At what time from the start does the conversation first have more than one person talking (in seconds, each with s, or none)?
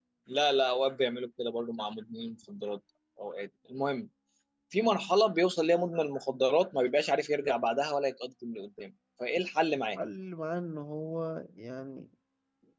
none